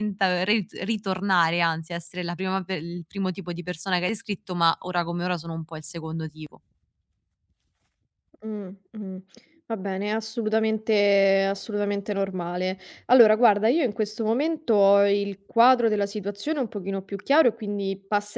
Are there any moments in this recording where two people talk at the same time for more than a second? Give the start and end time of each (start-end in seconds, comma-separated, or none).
none